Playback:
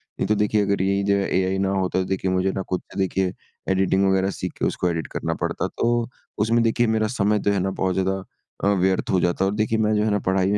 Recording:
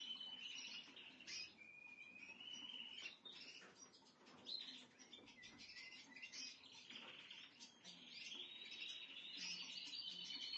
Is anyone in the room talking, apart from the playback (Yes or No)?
No